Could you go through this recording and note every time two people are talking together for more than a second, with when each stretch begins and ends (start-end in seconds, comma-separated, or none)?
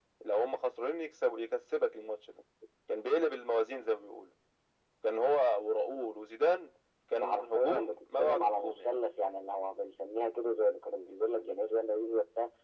7.2-8.9